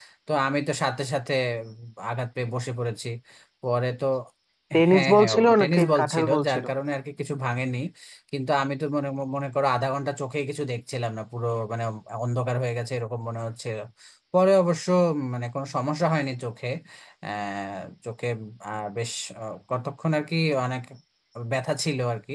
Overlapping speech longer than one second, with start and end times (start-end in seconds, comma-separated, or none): 4.9-6.6